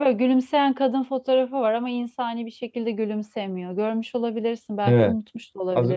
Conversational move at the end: taking over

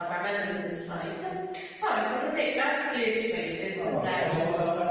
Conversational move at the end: taking over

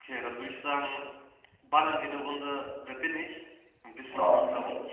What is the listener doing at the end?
taking over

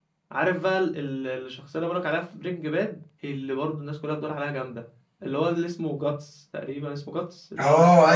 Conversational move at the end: taking over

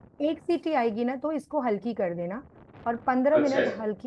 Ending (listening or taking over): listening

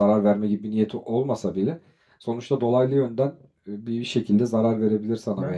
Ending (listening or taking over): taking over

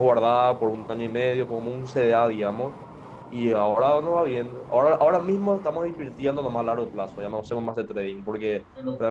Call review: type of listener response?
listening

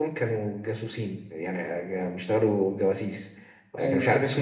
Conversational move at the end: listening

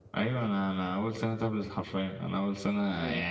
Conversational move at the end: listening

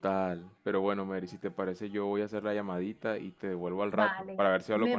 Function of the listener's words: taking over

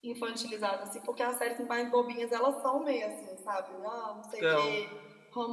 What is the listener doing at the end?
listening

